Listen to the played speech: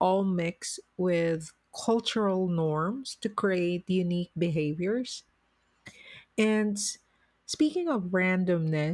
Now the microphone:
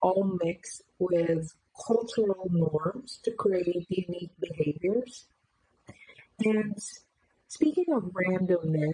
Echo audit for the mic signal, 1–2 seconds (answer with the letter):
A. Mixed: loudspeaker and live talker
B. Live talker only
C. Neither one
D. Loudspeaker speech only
D